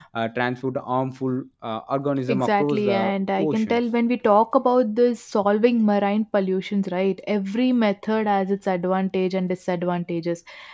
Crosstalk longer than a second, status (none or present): present